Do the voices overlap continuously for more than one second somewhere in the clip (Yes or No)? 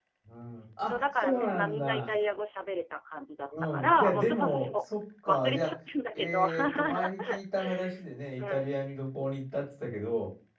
Yes